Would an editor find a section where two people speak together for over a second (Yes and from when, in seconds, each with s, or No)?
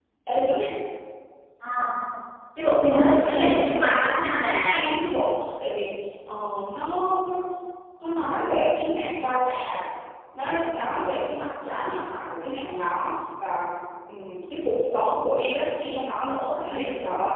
Yes, from 2.9 s